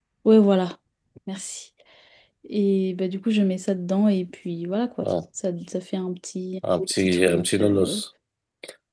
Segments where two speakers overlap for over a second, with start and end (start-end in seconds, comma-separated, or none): 6.8-8.0